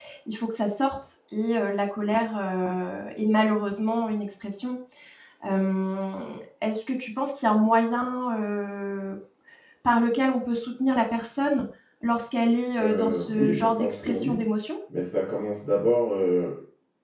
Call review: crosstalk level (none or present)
present